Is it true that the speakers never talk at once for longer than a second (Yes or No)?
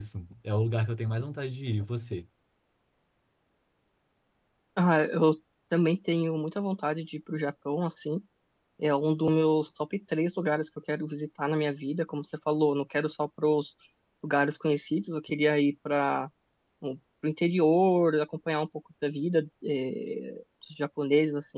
Yes